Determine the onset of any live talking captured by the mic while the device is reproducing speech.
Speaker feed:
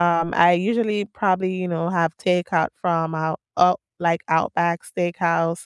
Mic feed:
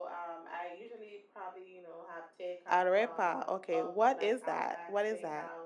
2.7 s

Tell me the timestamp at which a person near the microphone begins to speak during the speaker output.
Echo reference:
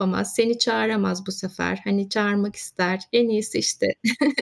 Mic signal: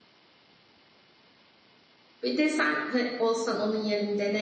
2.2 s

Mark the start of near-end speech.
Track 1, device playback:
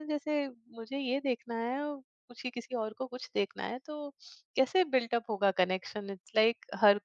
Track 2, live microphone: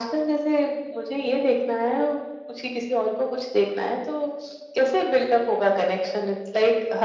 none

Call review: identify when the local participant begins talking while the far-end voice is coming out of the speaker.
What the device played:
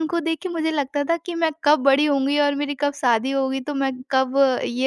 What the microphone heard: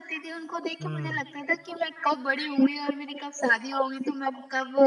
0.8 s

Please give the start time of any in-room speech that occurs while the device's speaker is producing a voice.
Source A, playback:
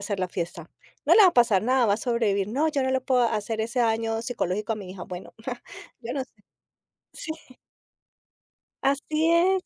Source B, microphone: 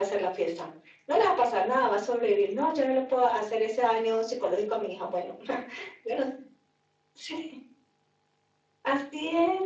none

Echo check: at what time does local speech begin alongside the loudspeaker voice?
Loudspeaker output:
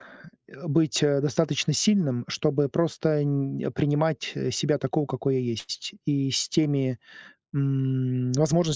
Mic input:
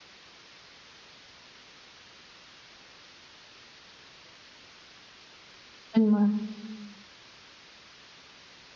5.9 s

